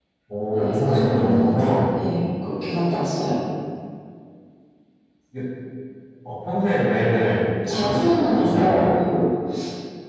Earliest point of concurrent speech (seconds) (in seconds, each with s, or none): 0.5 s